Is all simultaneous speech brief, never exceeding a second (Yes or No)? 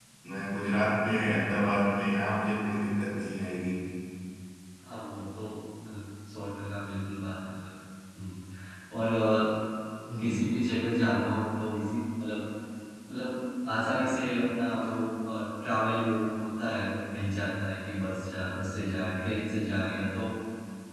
Yes